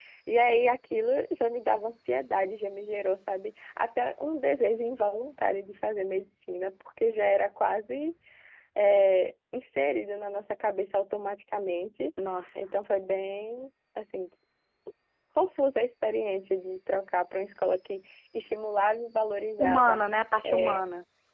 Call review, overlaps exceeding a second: none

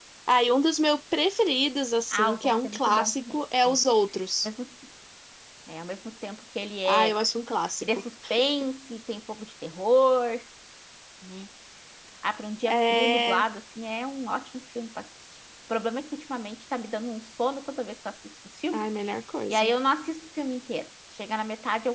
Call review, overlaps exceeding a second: present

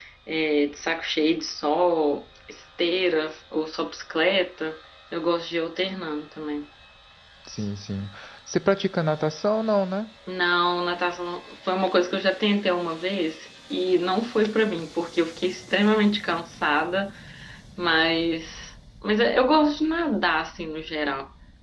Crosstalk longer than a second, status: none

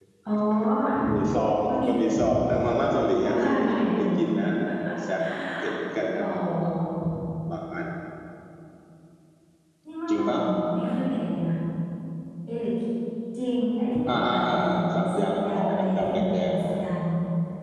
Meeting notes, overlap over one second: present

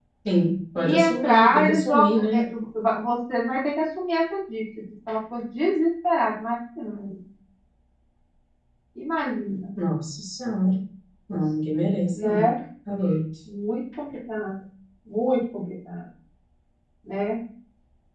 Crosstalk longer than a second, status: present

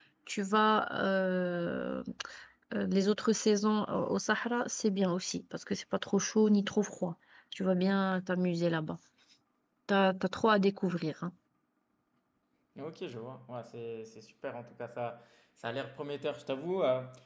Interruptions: none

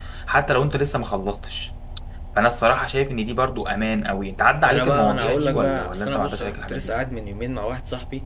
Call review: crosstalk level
present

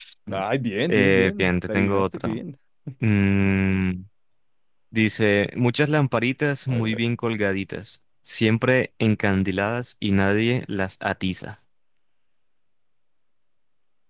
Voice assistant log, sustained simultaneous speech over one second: present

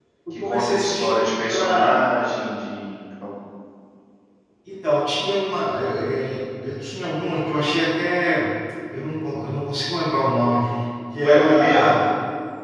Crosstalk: present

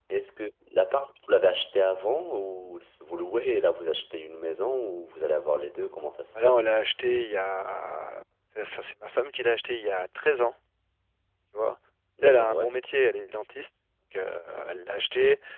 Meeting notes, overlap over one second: none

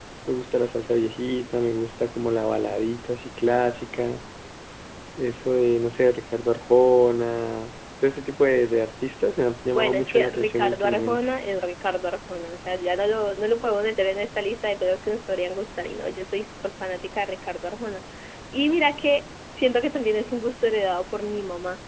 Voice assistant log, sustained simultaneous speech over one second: present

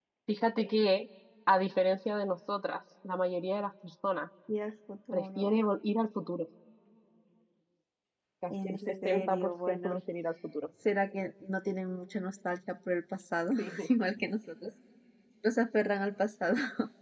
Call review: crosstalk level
present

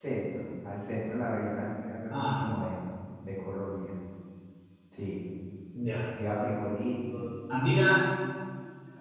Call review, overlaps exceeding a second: none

